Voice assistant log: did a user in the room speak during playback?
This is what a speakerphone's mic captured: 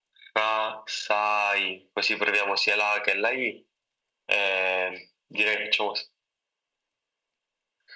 No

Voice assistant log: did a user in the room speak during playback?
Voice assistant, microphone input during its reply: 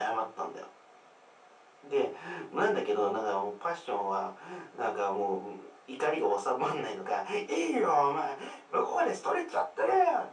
No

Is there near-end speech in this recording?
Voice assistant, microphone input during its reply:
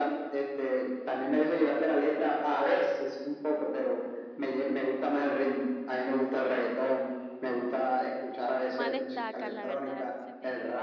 Yes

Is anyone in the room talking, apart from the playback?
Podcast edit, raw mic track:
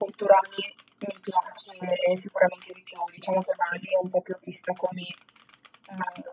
No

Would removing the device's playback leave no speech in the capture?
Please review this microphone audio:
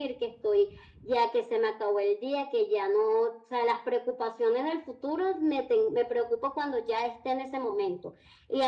Yes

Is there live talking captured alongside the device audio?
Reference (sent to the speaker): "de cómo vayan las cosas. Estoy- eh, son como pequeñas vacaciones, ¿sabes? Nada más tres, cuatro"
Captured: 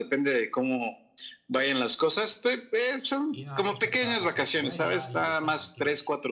Yes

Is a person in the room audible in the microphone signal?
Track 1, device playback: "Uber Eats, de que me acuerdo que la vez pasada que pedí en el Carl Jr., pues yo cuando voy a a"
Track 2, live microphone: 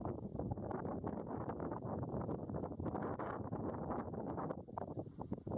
No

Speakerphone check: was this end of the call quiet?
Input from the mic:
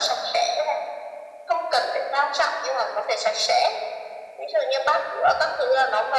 Yes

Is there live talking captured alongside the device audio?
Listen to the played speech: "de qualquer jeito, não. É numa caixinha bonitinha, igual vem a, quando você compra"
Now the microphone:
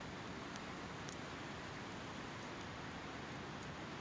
No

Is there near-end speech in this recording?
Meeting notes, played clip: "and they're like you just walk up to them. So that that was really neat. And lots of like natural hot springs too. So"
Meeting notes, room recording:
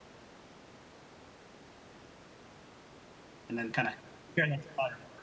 Yes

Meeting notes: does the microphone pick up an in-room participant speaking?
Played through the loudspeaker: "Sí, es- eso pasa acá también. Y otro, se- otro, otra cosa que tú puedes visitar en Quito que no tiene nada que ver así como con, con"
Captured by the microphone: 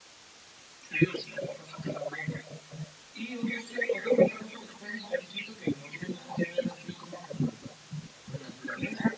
No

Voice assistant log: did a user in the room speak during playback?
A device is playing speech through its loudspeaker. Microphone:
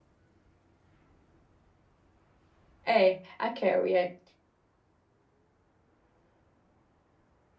Yes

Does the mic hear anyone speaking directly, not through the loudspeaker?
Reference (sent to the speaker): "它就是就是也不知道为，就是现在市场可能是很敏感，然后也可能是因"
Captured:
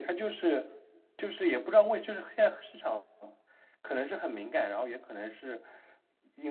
No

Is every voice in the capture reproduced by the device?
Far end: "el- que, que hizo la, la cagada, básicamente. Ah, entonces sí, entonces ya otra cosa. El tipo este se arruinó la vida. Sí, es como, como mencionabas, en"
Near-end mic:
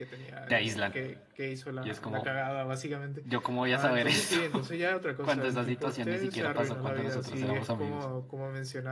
No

